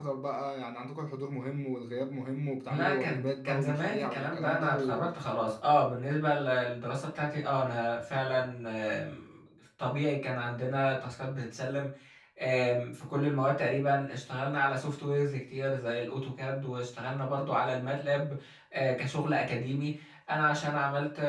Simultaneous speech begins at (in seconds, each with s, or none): 2.7 s